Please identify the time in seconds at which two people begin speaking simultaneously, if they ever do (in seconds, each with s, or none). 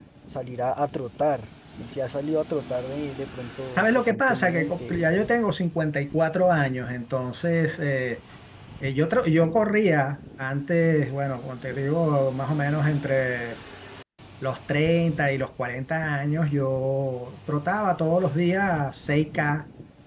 3.8 s